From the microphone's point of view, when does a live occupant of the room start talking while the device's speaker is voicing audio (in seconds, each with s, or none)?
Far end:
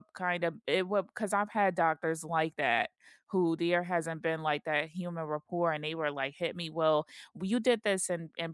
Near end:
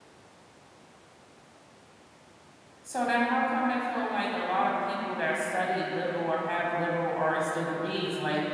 2.8 s